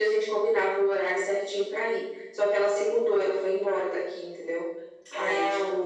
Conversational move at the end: listening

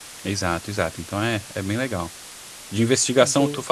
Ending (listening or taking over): listening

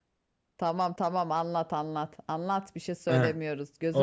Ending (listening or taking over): taking over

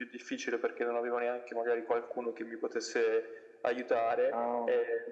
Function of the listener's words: listening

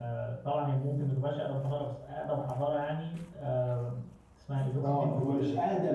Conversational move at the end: taking over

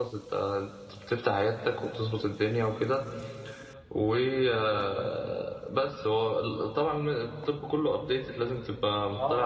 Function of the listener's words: taking over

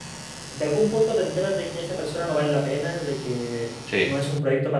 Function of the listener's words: listening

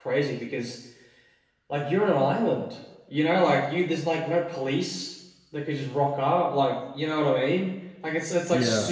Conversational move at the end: listening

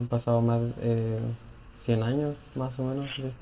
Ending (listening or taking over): taking over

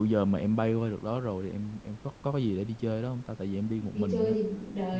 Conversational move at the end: taking over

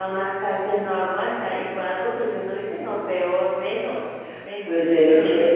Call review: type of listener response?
taking over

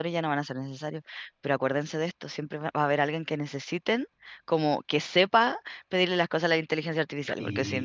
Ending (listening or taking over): listening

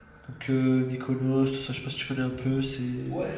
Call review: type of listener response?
taking over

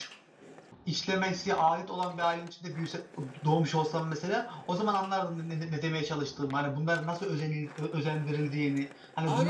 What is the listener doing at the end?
taking over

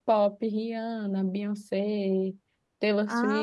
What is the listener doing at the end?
listening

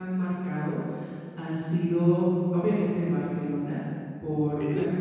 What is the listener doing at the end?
listening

